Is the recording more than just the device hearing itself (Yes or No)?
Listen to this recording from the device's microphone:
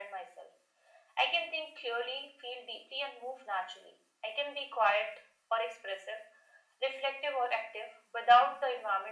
No